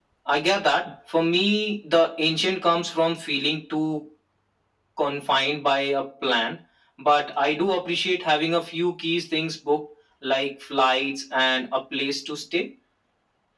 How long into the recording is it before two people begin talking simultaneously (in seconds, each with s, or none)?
none